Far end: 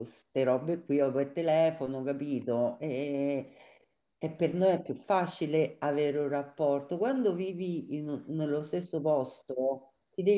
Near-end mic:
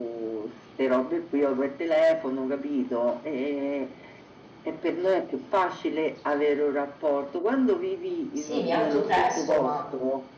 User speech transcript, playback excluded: sì, mi alzo presto, ma

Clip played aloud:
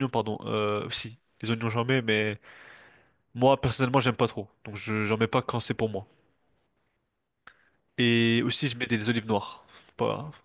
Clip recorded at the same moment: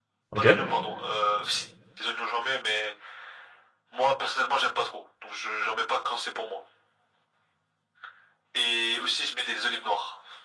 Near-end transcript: Ok.

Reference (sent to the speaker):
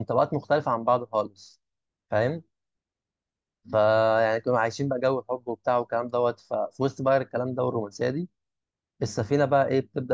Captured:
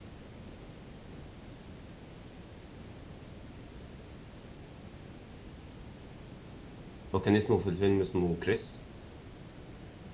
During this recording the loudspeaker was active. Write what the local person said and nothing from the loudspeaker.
هو كان اسمه في الفيلم اسمه كريس

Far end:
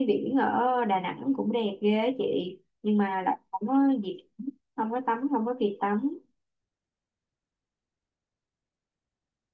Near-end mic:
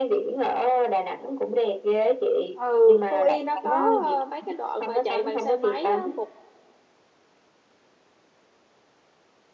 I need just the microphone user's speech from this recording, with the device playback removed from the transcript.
ừ Phú Yên nó có ờ, mấy cái đoạn mà chạy bằng xe máy á, một

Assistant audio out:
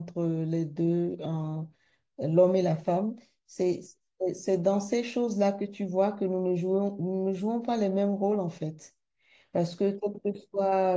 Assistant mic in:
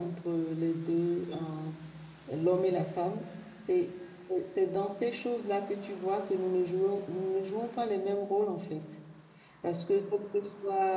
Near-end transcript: none

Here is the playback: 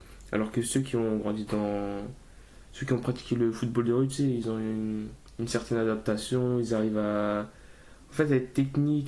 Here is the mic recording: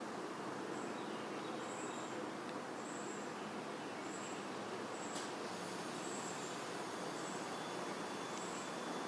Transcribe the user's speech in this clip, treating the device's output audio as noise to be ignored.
none

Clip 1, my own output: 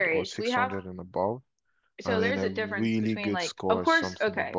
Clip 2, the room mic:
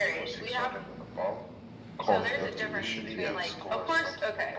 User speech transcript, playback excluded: cost of tuition. Yeah.

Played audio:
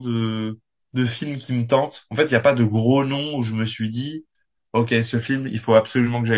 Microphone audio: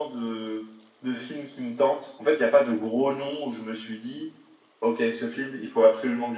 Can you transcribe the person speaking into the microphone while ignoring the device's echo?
none

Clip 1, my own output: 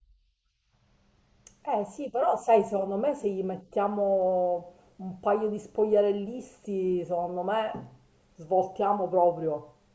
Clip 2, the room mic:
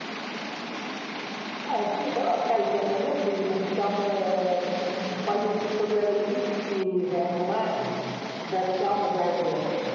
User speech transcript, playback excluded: none

